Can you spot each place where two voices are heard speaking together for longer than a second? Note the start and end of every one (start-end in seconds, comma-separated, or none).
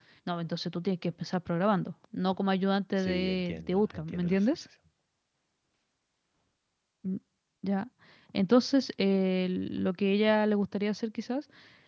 3.0-4.6